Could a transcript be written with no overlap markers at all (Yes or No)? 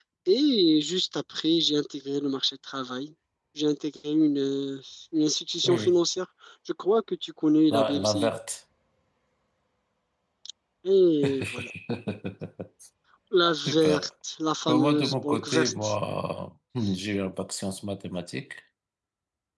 No